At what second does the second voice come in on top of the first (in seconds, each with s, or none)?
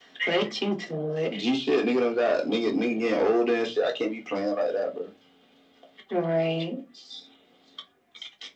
none